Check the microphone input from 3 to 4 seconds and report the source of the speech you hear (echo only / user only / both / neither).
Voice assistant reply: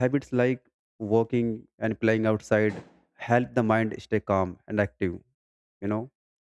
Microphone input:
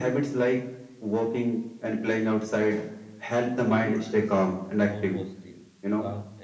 both